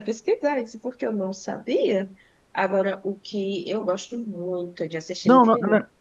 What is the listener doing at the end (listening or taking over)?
taking over